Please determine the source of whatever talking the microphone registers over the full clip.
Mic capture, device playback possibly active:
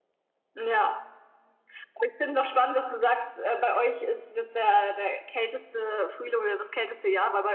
echo only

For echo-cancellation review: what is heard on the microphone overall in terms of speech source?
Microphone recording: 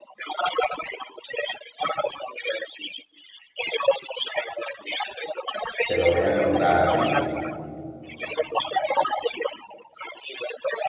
both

